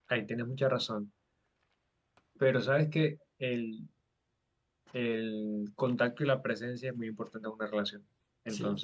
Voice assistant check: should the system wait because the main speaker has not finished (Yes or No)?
Yes